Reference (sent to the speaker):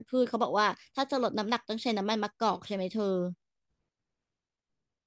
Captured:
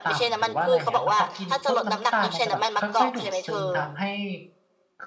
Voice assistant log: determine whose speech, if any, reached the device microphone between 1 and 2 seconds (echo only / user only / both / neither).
both